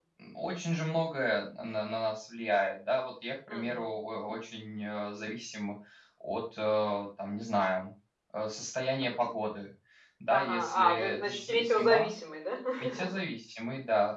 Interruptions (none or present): present